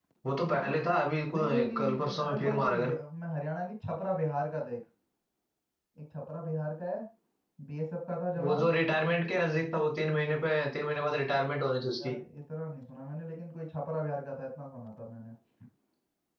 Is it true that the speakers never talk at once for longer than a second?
No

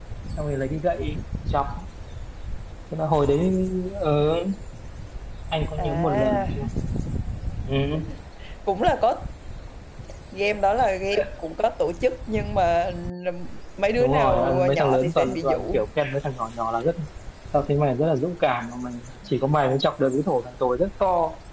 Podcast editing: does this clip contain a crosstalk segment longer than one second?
Yes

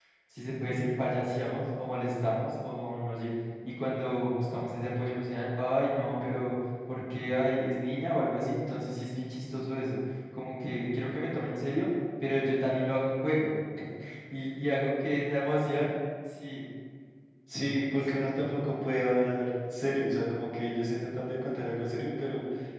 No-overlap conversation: Yes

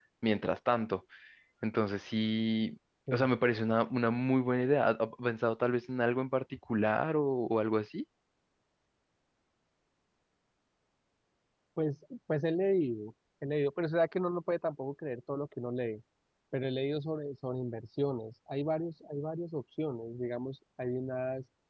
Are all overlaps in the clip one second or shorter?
Yes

